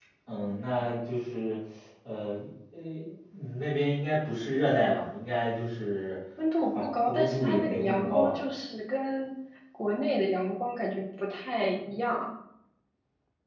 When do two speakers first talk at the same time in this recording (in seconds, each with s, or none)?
6.7 s